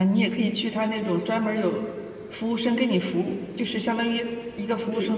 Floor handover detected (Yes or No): No